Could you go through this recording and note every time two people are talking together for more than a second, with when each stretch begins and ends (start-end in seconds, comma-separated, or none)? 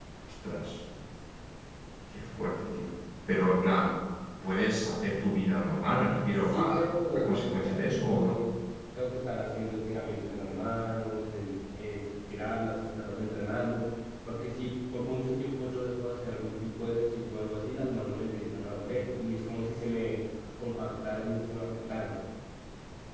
6.4-8.4